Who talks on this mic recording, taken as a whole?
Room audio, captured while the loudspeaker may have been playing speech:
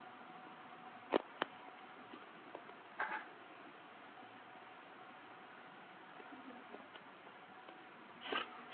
neither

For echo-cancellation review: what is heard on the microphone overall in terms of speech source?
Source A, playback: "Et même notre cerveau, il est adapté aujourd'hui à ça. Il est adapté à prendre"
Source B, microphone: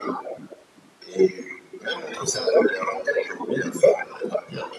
both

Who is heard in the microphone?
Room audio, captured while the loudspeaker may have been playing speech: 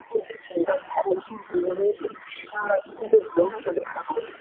both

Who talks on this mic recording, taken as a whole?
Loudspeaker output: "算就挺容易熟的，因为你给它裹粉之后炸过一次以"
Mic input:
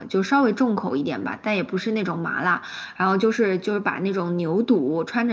user only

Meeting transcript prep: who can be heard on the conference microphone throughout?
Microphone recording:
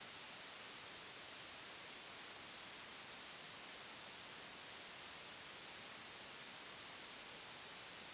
neither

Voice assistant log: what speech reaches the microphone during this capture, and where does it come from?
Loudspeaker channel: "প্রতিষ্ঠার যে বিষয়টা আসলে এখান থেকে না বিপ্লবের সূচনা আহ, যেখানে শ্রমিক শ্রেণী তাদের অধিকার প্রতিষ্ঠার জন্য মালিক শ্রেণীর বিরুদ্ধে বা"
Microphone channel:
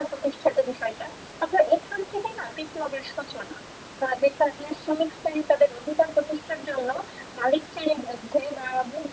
echo only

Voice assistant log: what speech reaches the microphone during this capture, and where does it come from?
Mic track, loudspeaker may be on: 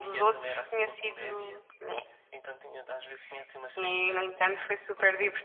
echo only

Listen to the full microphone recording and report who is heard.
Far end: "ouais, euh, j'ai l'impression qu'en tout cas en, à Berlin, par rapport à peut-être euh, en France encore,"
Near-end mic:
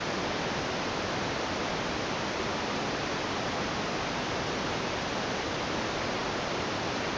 neither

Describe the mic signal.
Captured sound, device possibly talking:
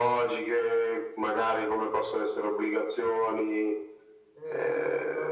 both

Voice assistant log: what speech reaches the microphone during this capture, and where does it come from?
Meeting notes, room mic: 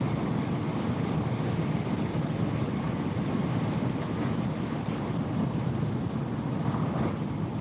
neither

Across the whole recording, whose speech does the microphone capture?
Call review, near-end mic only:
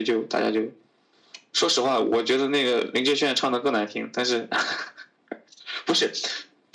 echo only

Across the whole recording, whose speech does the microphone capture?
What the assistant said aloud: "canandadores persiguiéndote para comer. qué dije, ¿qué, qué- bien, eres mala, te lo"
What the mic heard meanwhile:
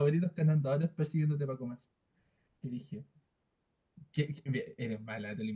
echo only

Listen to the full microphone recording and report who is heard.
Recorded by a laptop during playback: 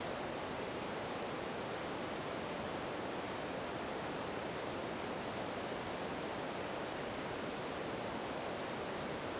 neither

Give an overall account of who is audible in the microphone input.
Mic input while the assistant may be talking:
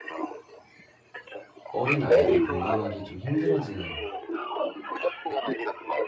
both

